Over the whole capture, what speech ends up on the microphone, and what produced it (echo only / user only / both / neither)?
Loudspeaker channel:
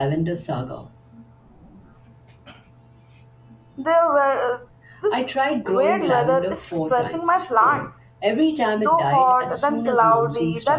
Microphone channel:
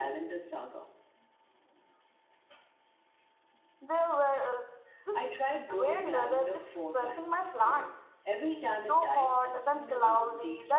echo only